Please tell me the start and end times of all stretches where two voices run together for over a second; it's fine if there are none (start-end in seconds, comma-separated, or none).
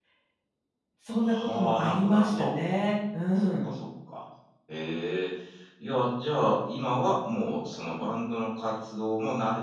1.2-2.6